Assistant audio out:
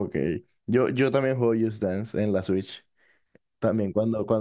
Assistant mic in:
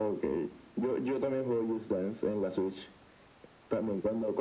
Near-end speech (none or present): none